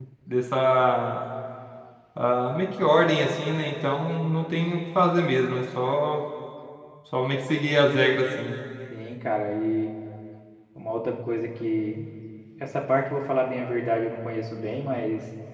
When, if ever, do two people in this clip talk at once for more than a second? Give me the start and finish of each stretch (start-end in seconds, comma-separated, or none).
none